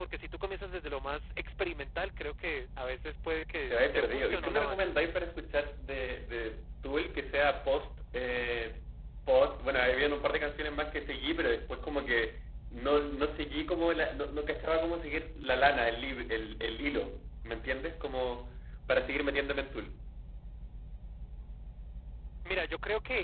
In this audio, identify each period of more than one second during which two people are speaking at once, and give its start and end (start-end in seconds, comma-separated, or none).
3.7-4.9